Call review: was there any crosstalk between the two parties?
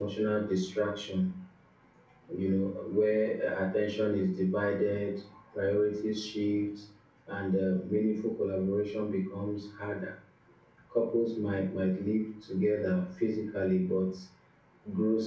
No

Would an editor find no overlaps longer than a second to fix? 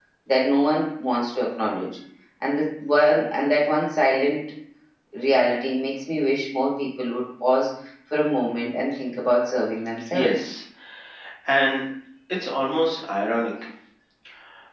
Yes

